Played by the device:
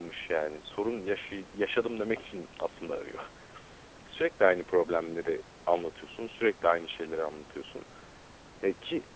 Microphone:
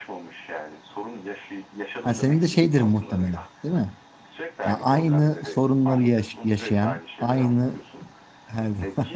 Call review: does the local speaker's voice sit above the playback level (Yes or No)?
Yes